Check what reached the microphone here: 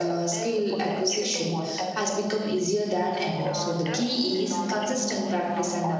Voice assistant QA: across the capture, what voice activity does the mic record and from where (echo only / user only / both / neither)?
both